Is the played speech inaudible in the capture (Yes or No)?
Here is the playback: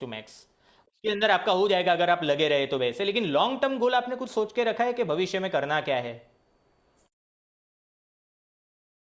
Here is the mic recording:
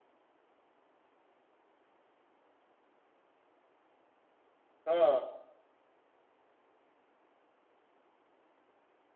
Yes